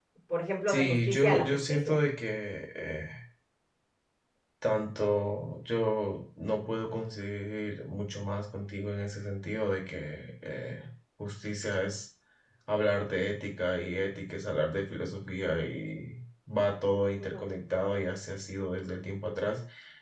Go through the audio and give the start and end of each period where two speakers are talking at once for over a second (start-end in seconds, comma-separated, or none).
0.7-2.0